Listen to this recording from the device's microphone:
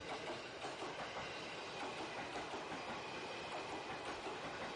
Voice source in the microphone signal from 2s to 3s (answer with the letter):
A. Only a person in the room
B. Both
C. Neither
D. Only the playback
C